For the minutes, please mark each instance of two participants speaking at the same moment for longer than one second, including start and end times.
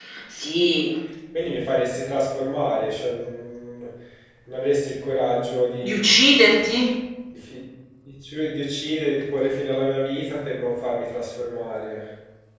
none

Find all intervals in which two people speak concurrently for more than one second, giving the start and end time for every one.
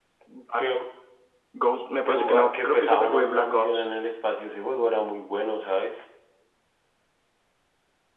2.0-3.9

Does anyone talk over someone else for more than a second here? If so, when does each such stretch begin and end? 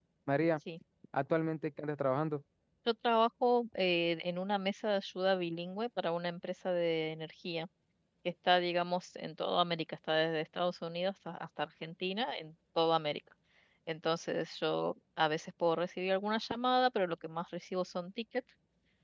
none

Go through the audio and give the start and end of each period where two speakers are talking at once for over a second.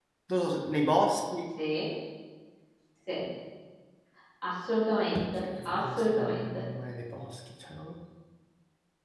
5.4-6.6

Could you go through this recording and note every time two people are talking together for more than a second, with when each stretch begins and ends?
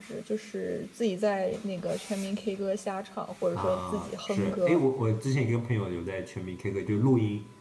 3.5-4.8

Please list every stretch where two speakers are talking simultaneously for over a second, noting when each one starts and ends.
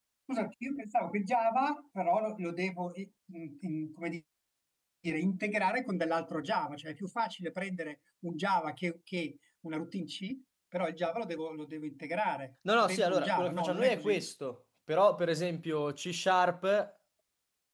12.8-14.2

